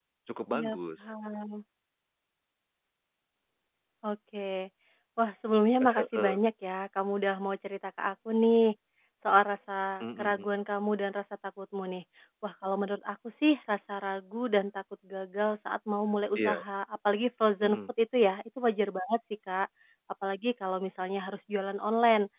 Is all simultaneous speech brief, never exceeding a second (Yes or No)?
Yes